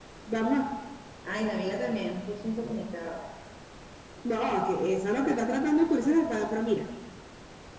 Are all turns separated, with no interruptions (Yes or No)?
Yes